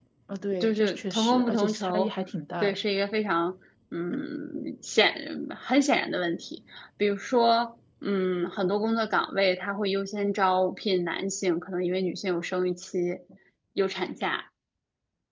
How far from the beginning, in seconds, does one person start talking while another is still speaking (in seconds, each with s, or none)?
0.6 s